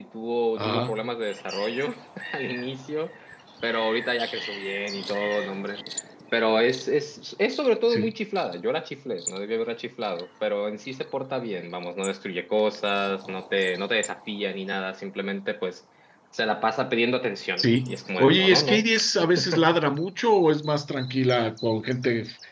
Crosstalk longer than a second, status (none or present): present